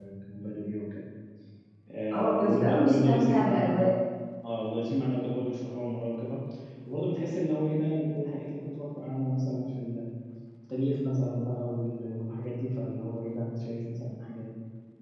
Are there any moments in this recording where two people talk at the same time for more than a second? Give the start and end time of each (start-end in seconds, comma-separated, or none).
2.1-3.9